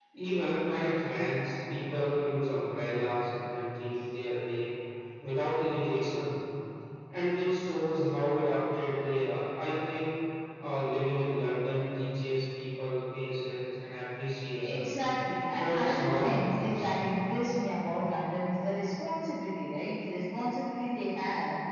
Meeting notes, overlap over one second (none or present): present